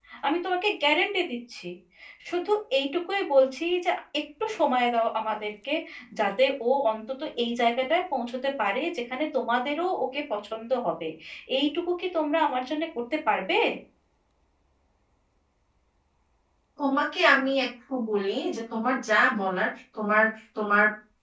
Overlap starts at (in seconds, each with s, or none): none